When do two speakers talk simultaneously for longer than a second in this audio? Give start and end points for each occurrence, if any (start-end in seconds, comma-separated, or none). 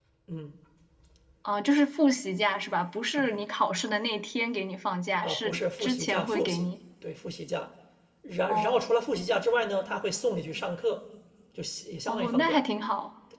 5.2-6.7